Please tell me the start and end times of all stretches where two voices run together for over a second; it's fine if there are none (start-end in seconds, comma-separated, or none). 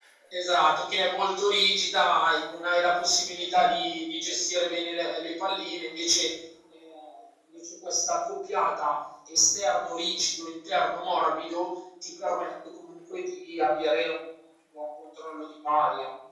none